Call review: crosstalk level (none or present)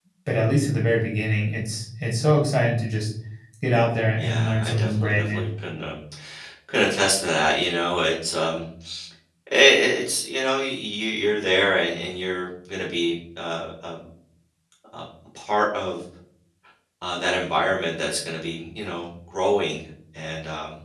present